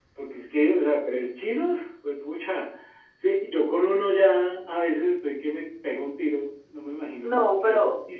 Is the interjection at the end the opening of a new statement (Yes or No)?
Yes